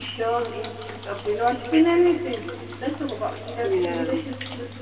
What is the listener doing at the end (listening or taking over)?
listening